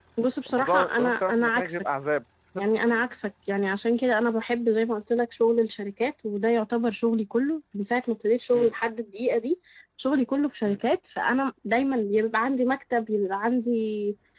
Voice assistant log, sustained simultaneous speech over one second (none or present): present